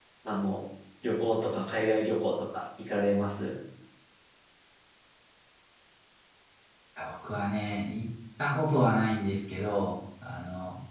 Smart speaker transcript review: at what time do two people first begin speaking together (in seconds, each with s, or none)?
none